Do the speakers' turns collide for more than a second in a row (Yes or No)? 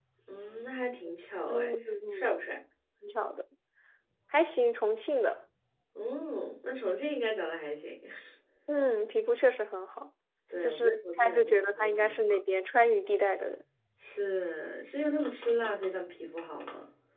Yes